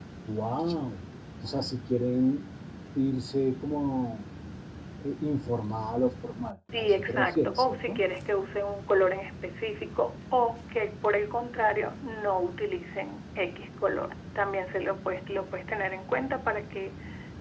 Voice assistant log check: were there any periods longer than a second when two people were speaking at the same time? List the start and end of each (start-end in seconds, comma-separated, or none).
6.8-8.0